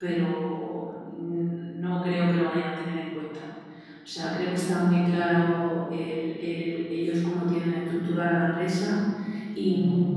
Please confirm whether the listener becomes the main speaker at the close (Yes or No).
No